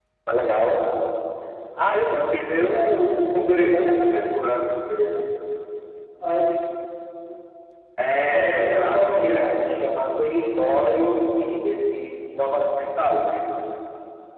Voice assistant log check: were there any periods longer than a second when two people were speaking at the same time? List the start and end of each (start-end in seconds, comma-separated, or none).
8.3-9.6